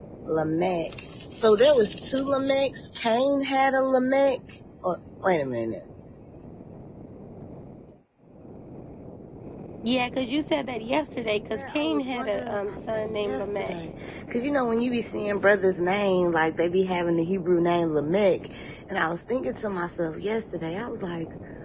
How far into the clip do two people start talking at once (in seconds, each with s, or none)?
11.3 s